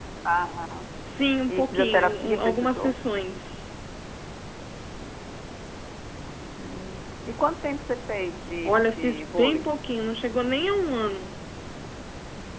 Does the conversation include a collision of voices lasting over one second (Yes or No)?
Yes